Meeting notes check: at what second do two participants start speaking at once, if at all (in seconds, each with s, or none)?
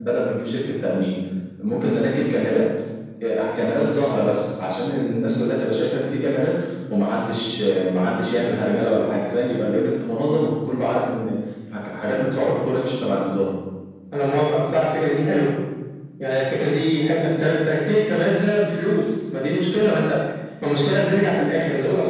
none